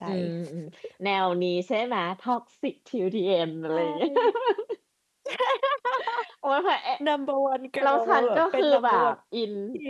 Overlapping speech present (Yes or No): Yes